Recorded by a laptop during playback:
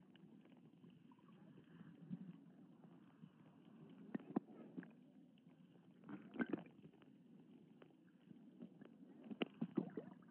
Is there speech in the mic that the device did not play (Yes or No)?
No